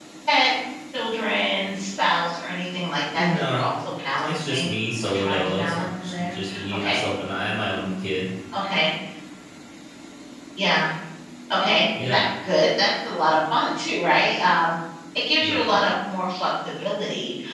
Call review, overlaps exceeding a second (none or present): present